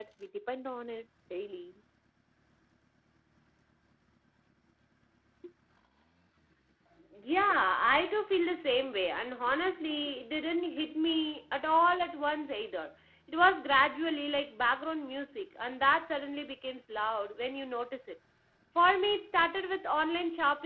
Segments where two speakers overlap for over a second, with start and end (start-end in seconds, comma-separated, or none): none